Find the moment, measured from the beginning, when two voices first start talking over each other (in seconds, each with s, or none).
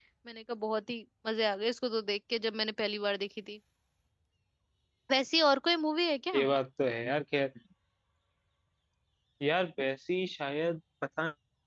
none